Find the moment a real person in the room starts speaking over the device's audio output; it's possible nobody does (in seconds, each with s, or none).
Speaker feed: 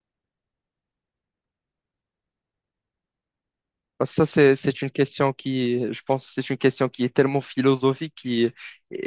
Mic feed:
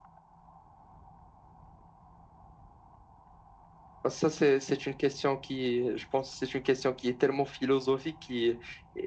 none